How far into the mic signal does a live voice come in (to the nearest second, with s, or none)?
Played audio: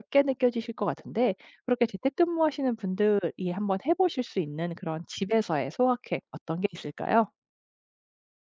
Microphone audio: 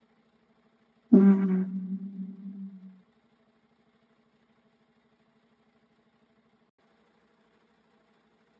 1 s